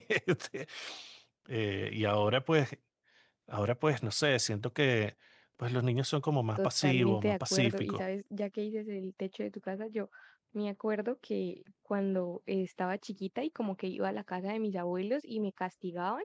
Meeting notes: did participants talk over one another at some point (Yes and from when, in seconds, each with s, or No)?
Yes, from 6.6 s